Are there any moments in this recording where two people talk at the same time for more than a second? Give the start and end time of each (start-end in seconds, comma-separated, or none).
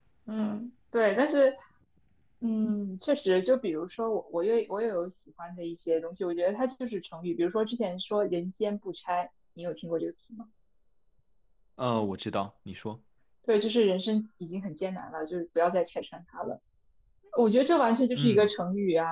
none